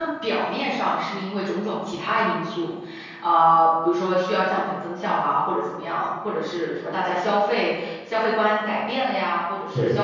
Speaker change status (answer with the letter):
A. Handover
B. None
B